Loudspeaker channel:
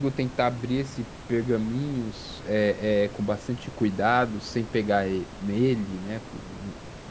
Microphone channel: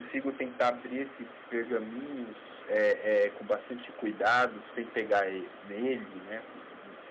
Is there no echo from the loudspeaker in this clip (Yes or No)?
No